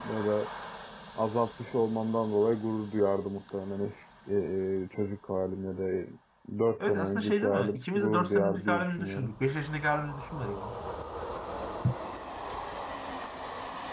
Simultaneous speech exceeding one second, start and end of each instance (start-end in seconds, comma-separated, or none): 6.8-9.3